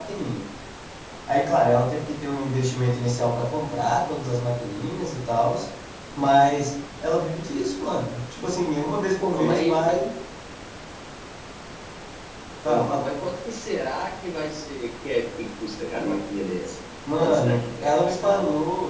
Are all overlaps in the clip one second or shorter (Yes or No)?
No